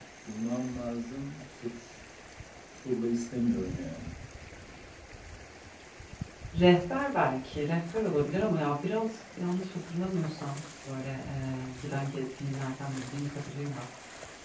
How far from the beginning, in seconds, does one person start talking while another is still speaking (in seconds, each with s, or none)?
none